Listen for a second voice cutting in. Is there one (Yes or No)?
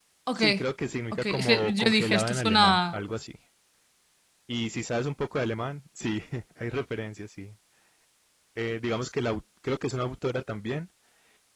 Yes